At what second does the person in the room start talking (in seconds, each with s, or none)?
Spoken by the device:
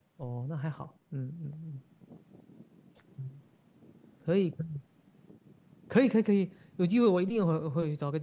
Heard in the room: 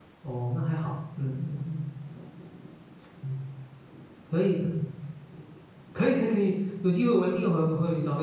none